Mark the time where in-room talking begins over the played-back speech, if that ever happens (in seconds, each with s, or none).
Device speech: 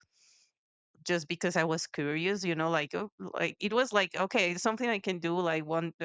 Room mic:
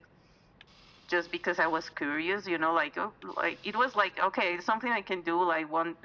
none